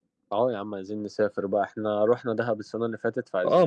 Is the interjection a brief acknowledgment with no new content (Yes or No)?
No